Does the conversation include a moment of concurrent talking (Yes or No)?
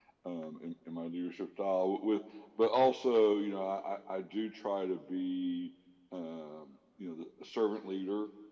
No